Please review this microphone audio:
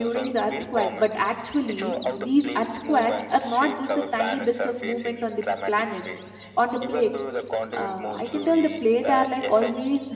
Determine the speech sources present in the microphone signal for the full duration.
both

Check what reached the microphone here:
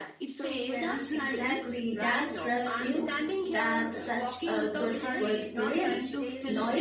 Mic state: both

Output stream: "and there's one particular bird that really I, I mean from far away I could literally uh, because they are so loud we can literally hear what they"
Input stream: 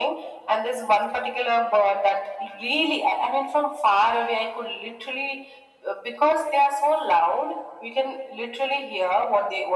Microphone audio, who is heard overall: echo only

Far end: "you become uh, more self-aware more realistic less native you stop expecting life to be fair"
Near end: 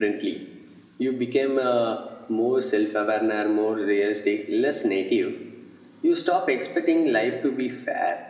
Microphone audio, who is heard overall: echo only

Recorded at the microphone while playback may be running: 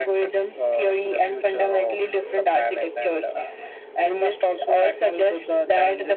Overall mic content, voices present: echo only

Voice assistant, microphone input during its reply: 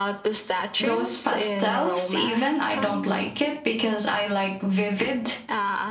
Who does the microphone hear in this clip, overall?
both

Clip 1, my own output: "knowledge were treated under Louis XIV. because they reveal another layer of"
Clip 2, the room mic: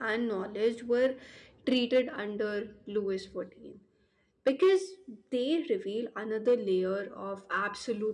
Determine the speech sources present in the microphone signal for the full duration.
echo only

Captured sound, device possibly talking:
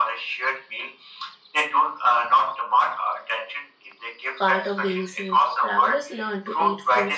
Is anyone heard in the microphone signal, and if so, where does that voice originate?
both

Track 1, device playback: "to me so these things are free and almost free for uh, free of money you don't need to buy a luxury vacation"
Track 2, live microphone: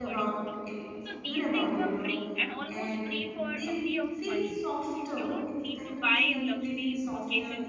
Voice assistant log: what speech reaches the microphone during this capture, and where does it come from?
both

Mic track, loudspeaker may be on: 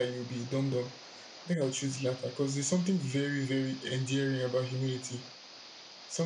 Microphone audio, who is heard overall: echo only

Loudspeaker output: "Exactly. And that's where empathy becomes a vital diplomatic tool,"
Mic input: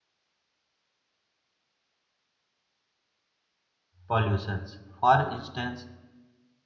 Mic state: user only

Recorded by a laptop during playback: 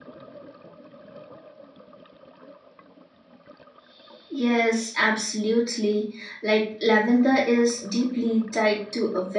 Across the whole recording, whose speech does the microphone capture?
user only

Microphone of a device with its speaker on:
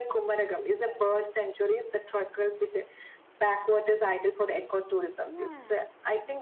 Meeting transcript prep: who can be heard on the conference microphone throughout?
both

